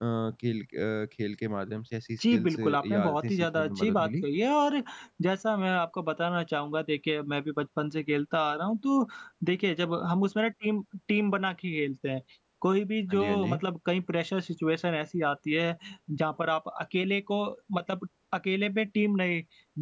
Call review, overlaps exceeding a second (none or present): present